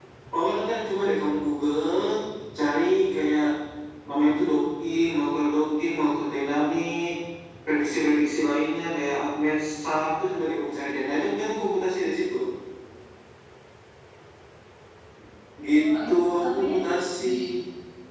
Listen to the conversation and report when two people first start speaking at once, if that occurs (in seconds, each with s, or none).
15.8 s